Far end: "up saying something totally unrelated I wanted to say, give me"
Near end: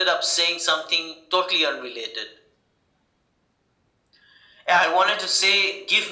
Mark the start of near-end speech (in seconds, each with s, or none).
none